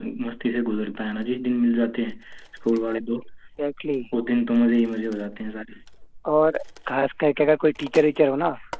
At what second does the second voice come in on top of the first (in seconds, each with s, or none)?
none